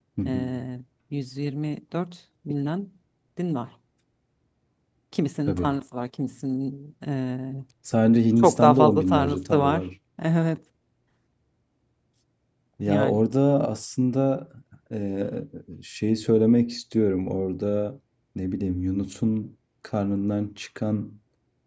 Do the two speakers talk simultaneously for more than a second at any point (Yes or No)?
Yes